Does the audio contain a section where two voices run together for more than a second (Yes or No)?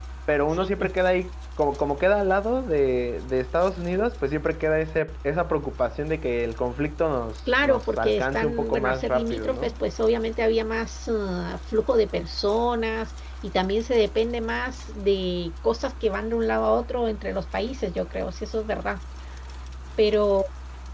Yes